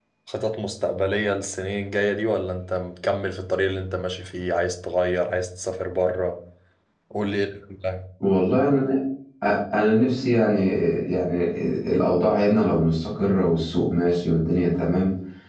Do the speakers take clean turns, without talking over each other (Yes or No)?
Yes